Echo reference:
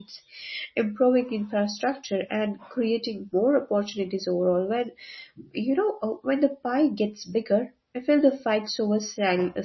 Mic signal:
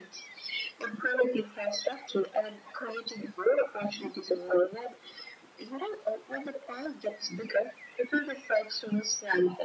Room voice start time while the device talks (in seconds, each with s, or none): none